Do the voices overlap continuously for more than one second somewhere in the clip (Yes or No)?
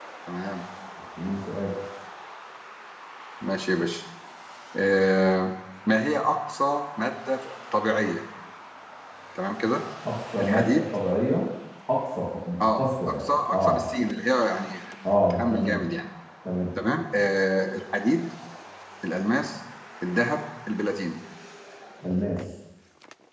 Yes